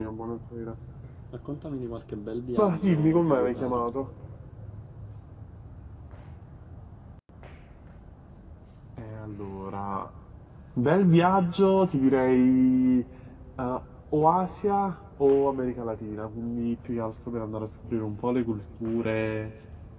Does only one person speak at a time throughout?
No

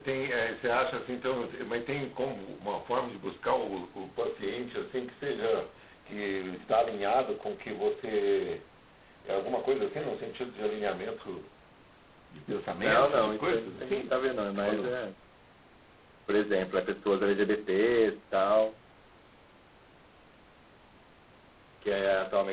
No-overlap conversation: No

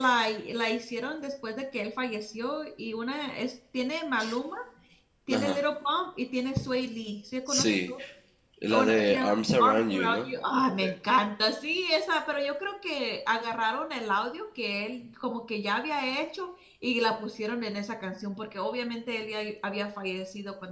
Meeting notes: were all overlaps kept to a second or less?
No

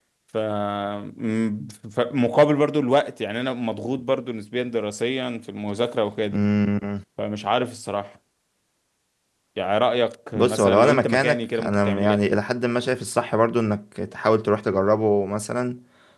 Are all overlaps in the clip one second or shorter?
No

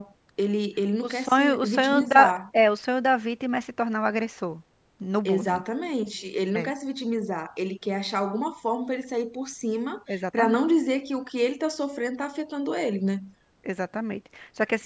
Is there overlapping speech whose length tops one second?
Yes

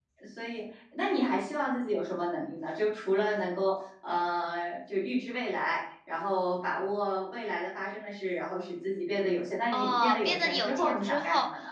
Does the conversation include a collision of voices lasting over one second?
Yes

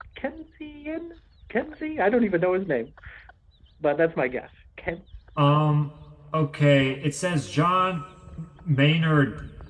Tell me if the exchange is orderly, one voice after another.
Yes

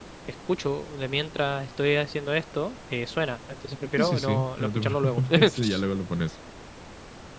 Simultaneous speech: Yes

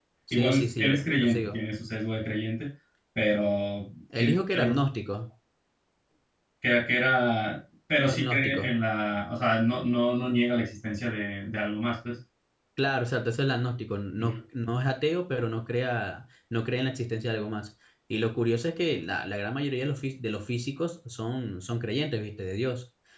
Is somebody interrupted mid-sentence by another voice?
Yes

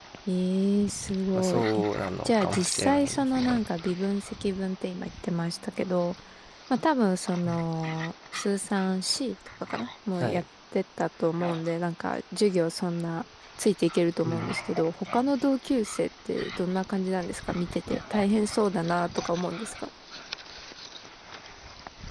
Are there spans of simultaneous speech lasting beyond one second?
Yes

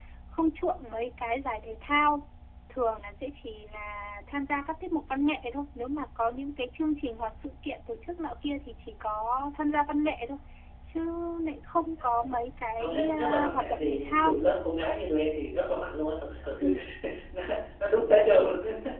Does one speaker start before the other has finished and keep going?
Yes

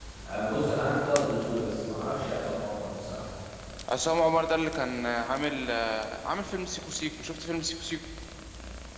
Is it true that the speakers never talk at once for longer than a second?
Yes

